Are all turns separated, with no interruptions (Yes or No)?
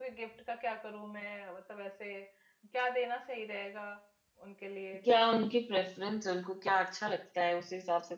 Yes